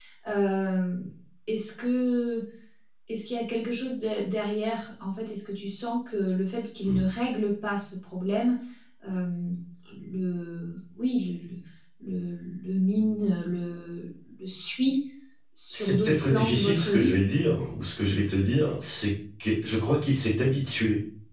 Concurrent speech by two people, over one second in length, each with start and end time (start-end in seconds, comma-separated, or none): 15.7-17.2